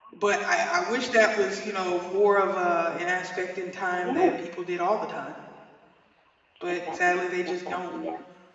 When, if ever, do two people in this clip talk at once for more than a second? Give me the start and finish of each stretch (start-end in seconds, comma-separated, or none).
6.7-7.9